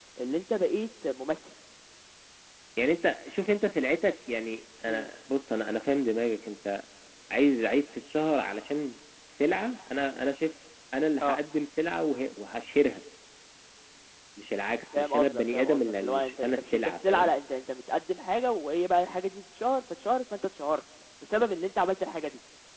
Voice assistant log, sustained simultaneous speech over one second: present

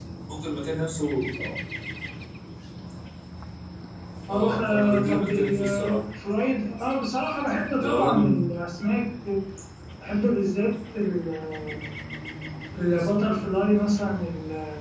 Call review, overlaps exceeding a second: present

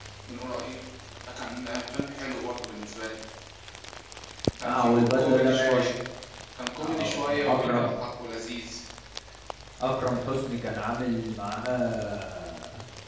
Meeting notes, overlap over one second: present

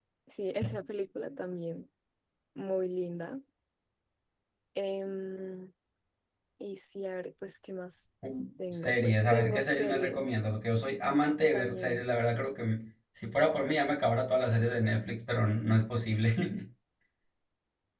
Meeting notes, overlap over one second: present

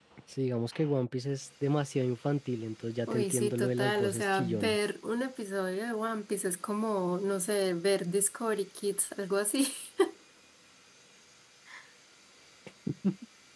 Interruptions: present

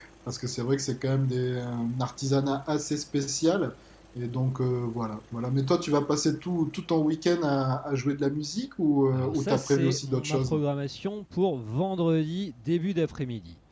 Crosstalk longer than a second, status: present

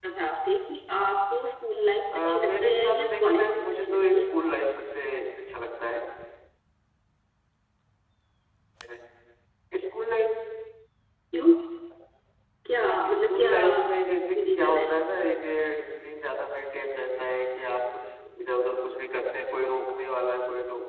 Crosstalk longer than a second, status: present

